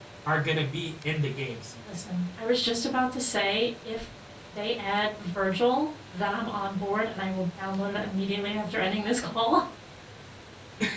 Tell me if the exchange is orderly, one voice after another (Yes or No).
Yes